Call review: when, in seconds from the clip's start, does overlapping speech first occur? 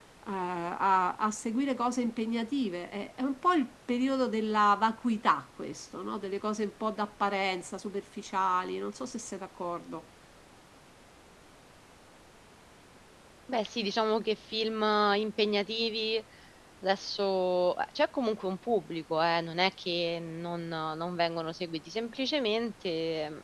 none

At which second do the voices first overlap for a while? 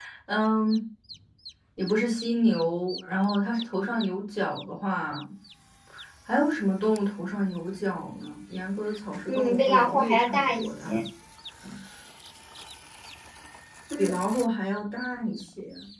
9.3 s

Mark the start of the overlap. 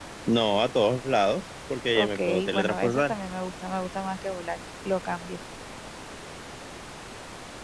2.0 s

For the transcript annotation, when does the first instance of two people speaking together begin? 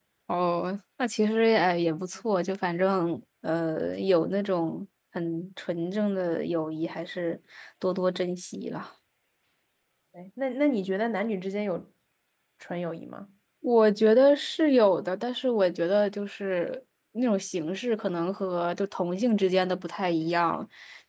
none

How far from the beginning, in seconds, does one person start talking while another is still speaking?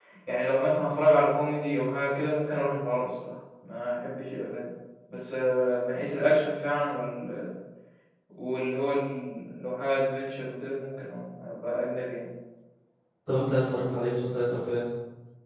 none

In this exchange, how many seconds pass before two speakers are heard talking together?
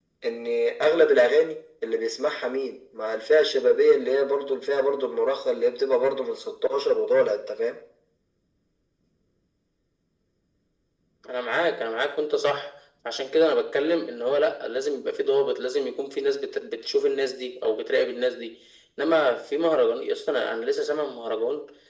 none

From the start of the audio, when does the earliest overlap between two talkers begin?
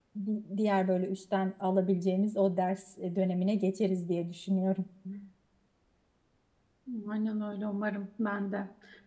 none

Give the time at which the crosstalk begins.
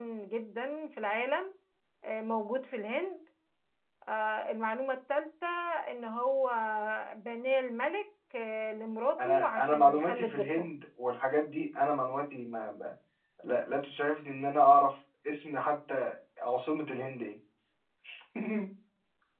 9.2 s

